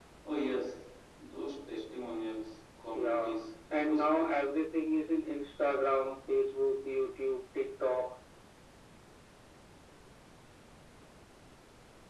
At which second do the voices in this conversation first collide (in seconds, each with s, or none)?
2.9 s